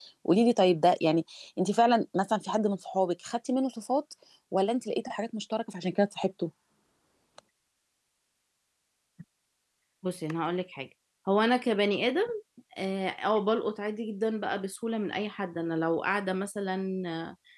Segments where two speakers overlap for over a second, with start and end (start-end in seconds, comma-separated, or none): none